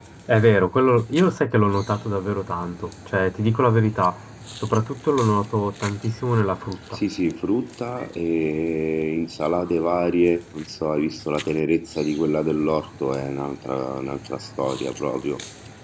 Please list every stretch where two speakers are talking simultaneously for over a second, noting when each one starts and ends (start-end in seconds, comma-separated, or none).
none